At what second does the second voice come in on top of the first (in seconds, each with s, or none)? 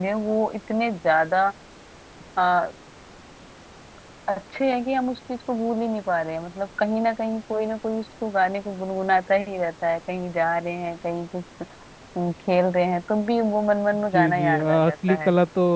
14.1 s